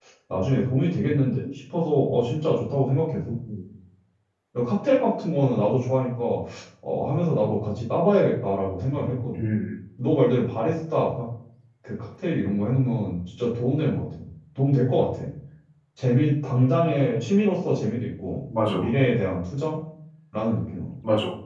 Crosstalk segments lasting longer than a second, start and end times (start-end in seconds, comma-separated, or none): none